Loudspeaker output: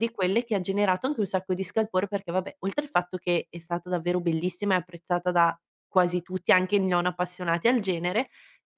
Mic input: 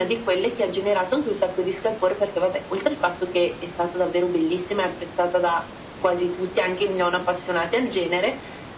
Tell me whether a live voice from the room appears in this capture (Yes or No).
No